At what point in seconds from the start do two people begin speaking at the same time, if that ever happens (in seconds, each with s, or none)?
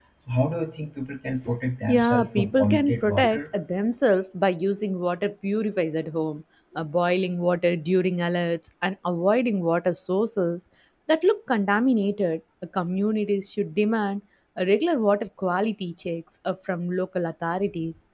1.9 s